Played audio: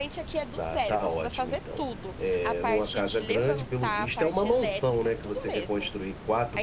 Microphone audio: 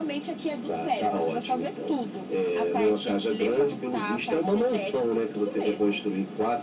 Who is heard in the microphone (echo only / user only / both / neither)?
echo only